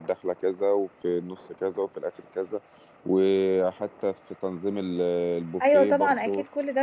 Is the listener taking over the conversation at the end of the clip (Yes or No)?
Yes